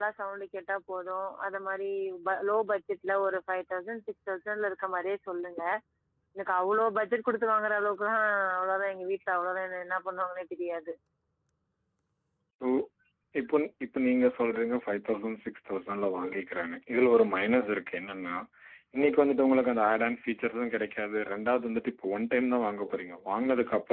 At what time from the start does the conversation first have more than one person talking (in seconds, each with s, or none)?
none